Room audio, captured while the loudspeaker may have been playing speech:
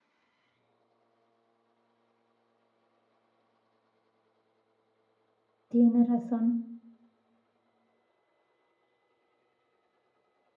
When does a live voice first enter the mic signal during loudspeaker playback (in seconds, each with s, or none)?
5.7 s